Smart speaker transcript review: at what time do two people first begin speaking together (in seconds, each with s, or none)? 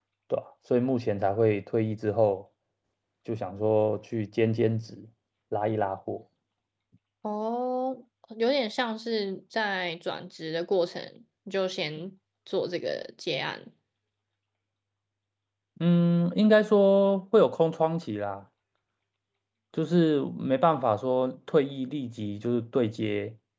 none